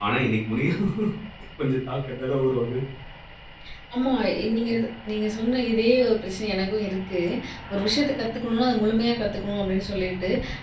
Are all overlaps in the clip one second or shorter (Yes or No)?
Yes